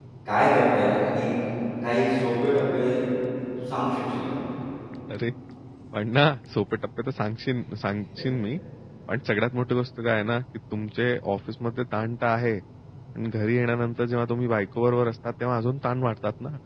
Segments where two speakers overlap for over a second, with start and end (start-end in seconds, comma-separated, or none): none